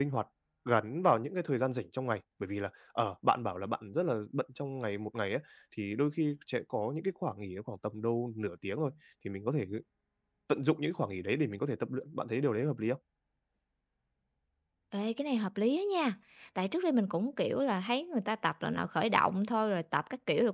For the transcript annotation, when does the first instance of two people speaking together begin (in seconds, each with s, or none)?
none